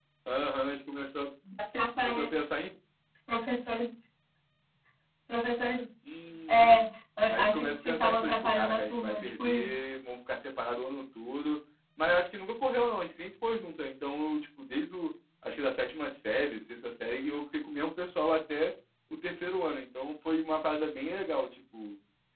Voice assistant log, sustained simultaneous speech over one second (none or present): present